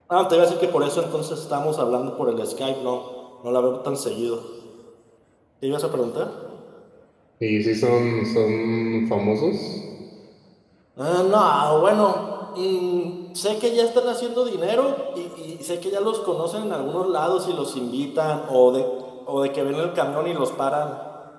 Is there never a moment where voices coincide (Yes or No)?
Yes